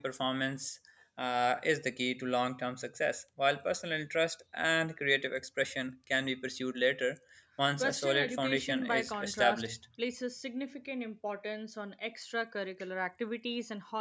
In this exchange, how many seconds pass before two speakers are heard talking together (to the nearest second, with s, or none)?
8 s